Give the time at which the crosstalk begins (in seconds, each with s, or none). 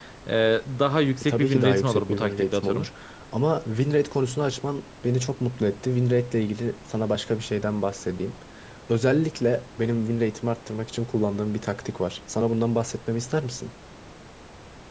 1.3 s